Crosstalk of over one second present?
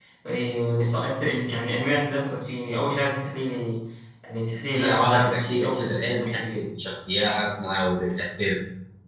Yes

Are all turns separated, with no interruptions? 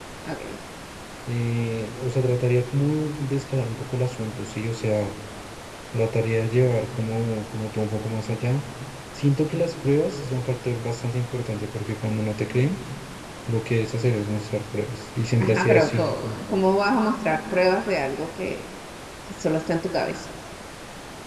No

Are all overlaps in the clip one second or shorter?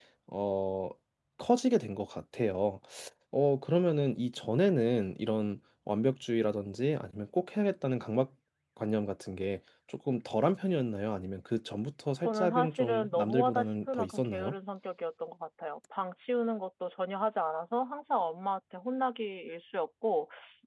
No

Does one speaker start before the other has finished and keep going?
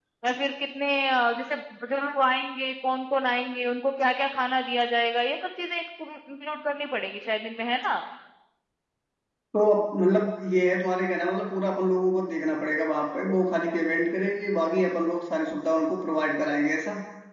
No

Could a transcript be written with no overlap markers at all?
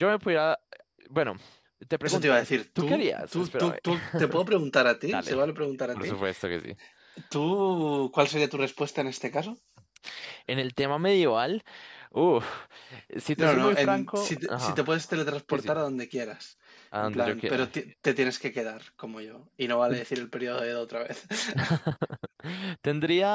No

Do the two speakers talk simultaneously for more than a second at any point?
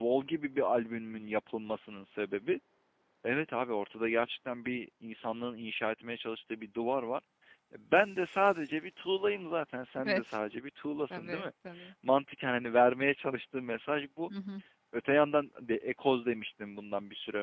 No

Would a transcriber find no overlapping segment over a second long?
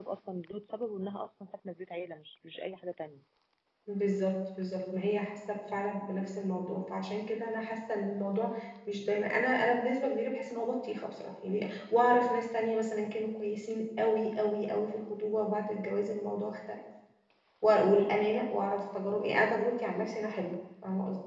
Yes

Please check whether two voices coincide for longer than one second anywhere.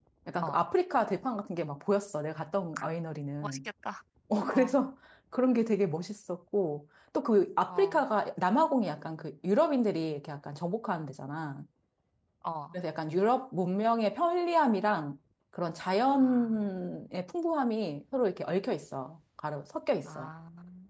No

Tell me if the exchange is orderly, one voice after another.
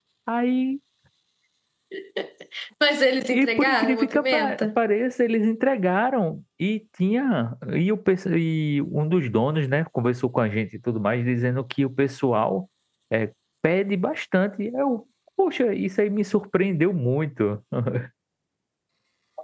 No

